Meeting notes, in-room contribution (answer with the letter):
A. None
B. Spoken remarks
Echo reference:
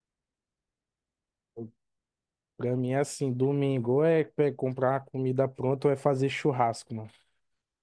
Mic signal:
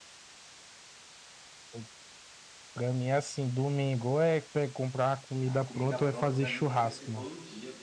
B